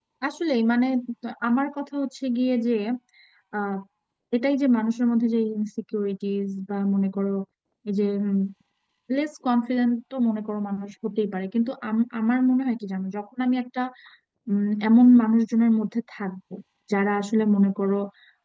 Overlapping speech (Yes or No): No